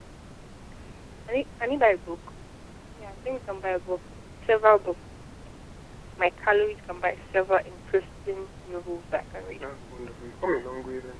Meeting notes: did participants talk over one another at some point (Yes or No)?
No